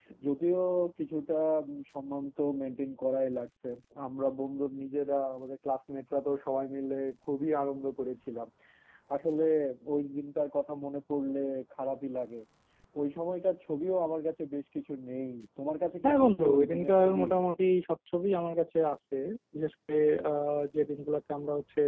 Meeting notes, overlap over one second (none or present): present